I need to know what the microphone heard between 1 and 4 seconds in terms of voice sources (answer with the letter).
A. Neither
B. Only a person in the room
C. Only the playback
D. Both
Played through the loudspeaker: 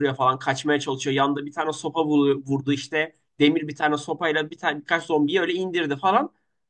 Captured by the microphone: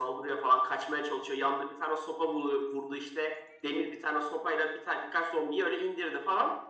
C